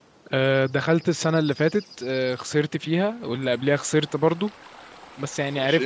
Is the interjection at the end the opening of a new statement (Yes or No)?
No